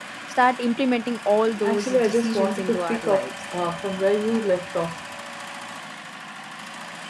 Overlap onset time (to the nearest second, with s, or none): 2 s